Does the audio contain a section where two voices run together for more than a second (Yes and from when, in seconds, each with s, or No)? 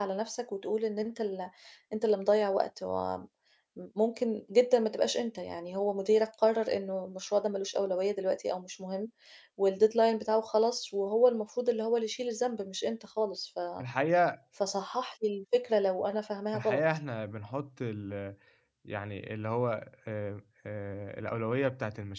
No